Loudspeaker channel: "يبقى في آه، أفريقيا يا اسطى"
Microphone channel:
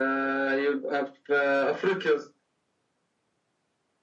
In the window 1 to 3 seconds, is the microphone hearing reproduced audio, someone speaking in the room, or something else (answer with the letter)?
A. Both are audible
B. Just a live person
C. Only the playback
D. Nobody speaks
C